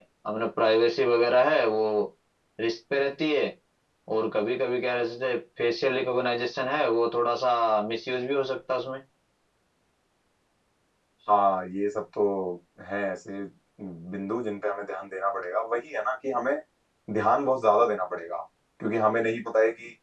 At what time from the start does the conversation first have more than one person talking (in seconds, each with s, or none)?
none